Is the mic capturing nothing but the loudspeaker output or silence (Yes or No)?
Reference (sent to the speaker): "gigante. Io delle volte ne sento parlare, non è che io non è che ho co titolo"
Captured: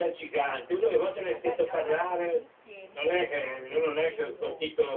No